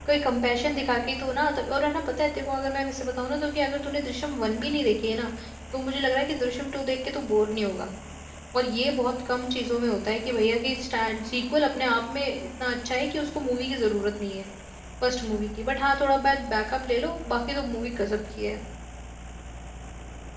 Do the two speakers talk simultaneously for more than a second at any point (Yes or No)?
No